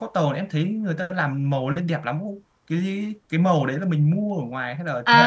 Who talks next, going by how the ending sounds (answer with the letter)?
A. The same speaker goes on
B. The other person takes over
B